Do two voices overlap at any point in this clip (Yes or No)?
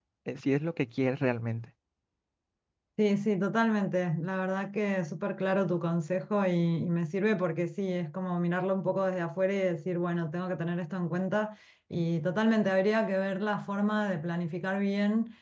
No